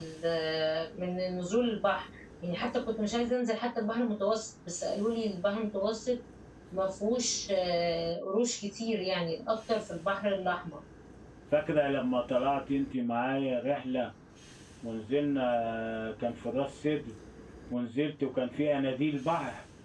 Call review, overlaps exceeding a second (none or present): none